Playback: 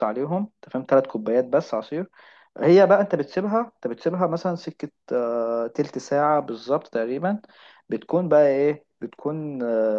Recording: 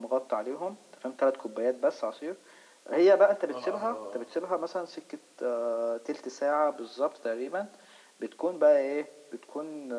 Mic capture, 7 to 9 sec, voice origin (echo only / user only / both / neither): echo only